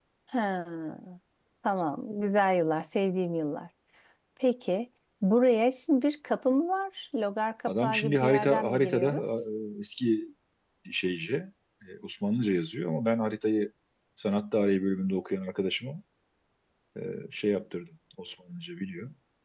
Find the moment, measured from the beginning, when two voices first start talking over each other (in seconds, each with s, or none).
7.7 s